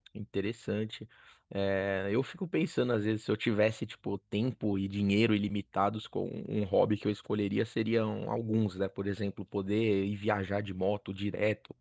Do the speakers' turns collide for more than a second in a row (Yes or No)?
No